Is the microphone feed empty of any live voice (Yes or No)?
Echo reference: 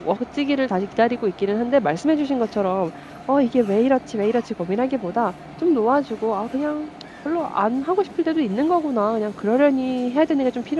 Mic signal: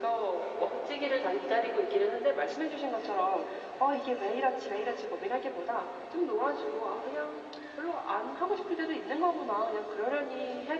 Yes